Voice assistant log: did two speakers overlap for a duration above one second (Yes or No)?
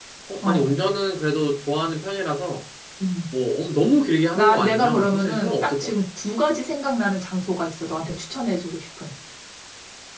Yes